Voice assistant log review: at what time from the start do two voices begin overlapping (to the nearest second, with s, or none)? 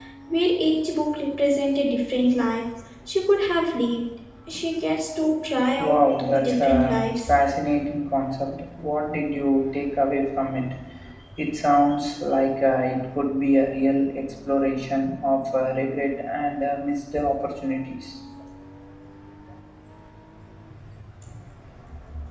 6 s